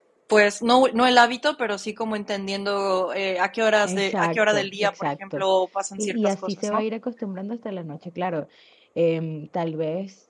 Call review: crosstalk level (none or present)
present